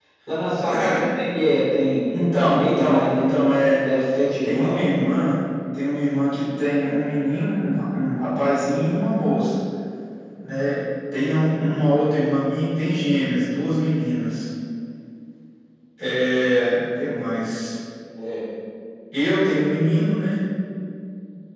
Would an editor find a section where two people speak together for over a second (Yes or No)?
Yes